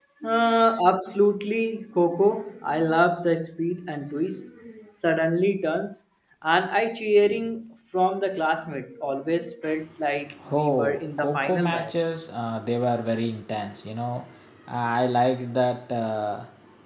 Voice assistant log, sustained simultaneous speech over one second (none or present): present